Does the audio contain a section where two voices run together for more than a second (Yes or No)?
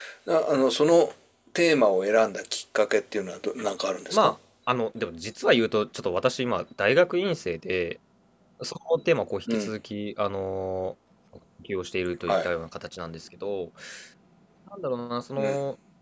No